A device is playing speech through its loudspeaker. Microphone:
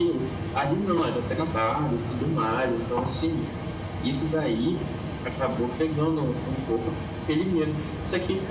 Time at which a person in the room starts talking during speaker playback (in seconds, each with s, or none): none